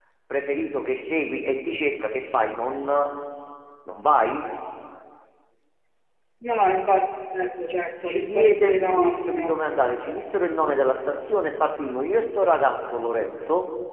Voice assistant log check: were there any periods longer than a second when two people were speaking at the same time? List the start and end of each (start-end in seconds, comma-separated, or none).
8.1-9.6